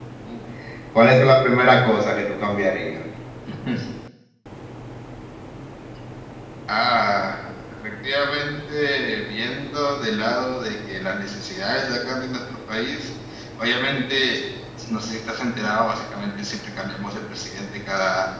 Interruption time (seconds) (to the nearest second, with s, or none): none